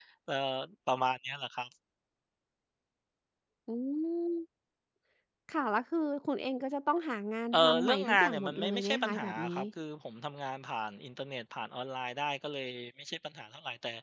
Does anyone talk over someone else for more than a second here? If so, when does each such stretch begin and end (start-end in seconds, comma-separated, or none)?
7.5-9.6